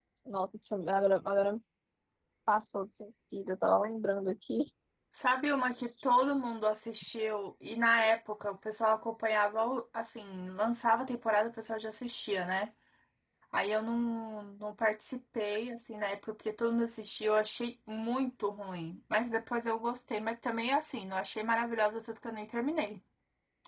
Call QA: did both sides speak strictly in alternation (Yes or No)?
Yes